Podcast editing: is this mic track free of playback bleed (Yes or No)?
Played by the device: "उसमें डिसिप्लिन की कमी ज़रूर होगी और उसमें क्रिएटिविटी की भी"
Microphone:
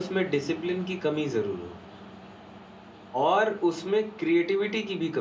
No